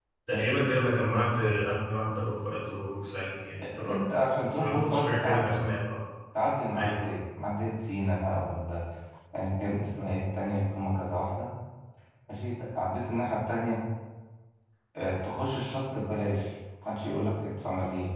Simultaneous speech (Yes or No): Yes